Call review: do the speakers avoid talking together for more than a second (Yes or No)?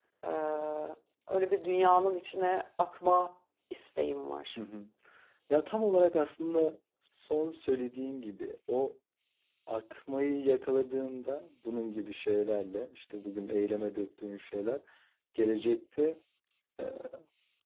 Yes